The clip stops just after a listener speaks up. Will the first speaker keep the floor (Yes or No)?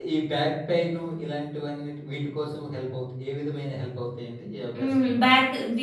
No